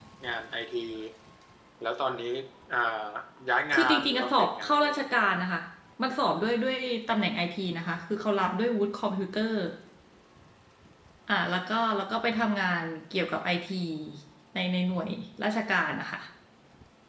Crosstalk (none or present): present